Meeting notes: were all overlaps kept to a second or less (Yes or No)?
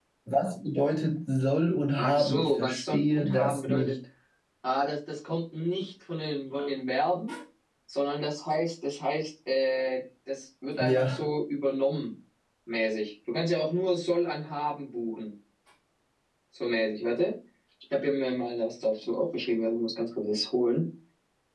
No